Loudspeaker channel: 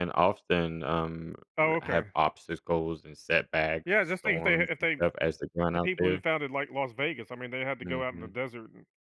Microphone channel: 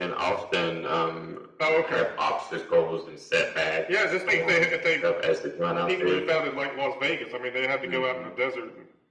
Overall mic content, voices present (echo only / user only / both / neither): echo only